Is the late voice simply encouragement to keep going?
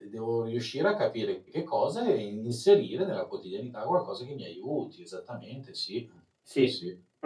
No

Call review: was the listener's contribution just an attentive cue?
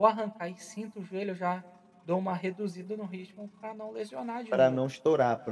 No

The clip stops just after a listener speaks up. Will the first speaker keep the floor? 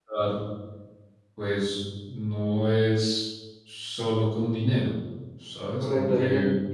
No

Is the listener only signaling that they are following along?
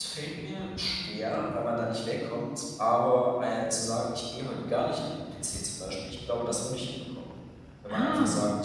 Yes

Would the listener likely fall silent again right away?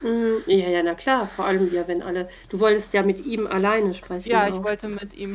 No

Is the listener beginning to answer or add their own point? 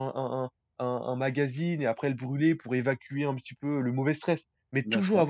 No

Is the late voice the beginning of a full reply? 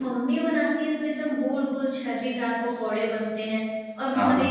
No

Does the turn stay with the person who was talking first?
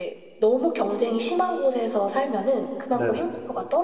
Yes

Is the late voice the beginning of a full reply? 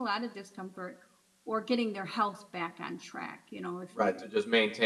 Yes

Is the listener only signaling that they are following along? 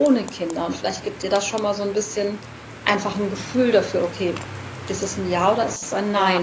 Yes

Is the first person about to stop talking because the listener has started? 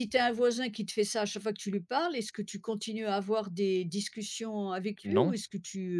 No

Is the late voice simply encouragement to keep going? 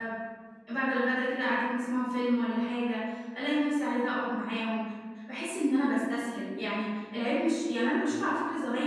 Yes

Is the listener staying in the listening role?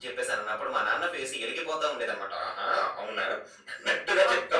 No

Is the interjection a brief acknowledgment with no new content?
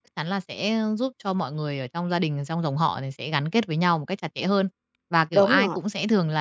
Yes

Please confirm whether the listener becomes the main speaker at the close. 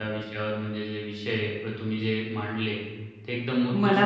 No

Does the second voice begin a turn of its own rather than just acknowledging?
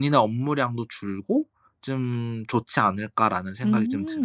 Yes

